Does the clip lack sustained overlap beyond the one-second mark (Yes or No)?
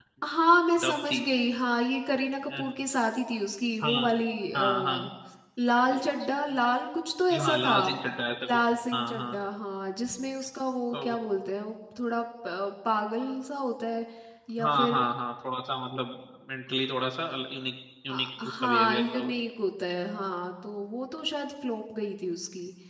No